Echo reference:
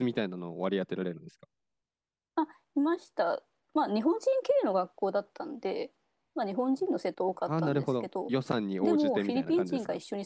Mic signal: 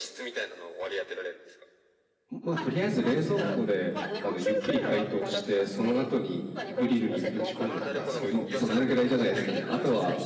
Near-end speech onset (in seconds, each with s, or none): 2.3 s